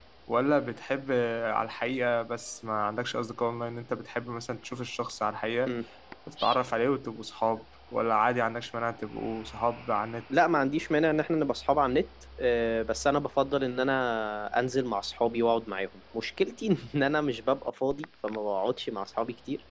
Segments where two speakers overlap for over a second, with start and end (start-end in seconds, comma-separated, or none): none